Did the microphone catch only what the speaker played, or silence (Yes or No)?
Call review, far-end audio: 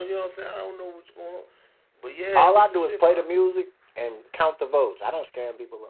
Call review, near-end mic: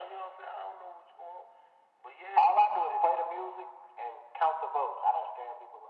Yes